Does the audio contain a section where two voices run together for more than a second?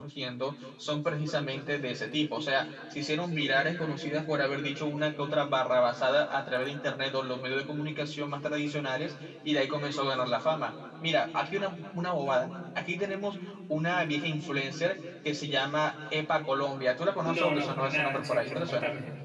Yes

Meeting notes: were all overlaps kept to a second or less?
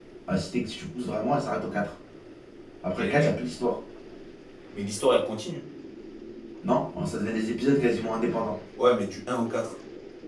Yes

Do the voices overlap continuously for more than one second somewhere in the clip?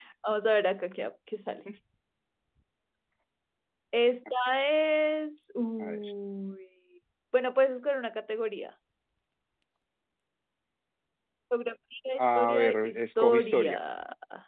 Yes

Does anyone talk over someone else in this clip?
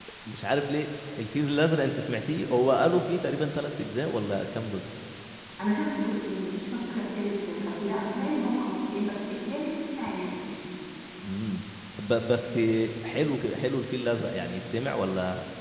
No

